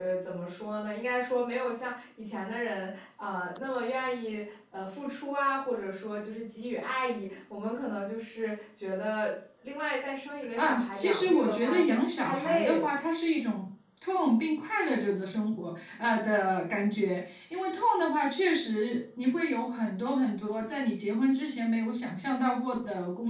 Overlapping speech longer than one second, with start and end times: 10.6-12.9

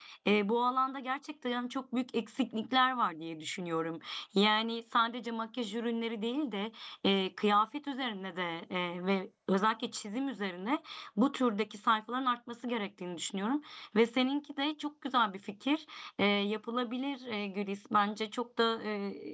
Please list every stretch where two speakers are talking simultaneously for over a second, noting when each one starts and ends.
none

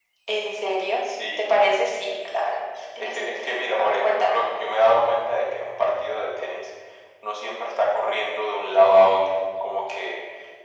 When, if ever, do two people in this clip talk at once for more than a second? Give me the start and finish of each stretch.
3.0-4.4

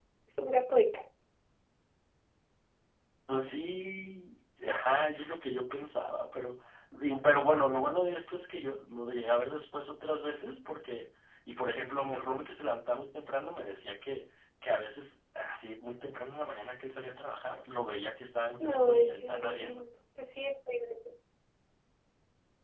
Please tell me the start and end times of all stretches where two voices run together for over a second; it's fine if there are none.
18.6-19.8

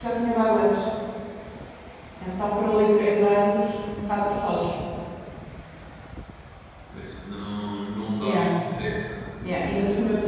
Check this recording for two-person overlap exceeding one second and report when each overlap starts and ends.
none

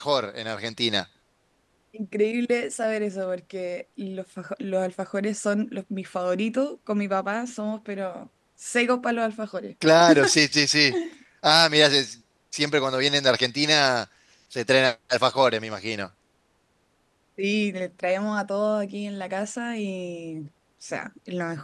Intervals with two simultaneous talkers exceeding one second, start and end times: none

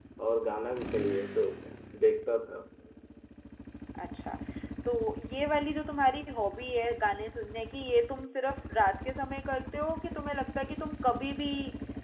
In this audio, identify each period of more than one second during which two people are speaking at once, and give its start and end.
none

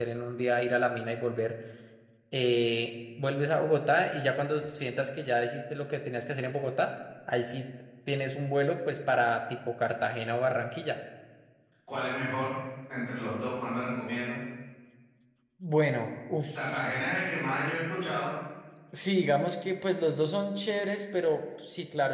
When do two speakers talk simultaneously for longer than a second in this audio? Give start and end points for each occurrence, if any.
none

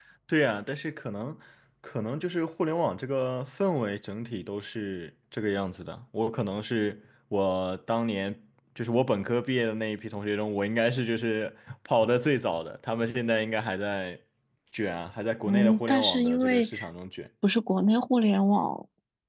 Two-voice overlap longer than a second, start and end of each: 15.5-16.7

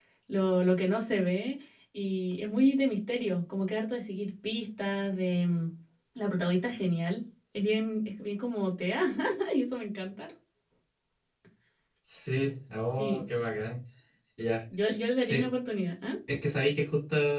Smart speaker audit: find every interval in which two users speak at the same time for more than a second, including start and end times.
none

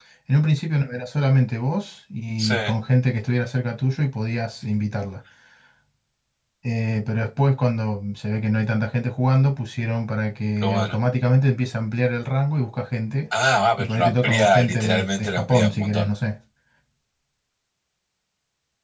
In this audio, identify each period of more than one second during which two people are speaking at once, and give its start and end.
13.8-16.1

